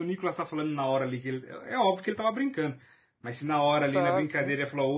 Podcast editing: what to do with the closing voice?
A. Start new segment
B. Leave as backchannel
B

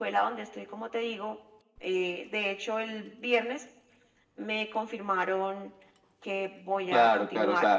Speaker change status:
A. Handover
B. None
A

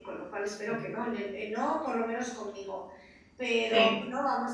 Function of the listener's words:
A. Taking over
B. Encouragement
B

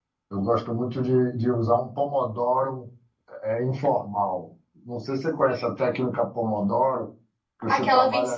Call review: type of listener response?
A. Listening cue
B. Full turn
B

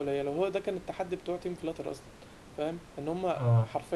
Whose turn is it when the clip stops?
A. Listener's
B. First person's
B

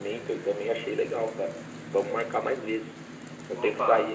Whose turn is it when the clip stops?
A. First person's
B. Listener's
A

